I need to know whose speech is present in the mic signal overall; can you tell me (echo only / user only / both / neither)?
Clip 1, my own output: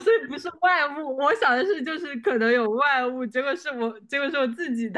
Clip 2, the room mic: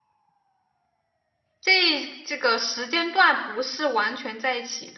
user only